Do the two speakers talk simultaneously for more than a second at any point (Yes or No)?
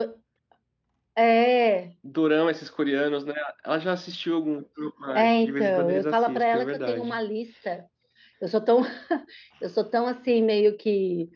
Yes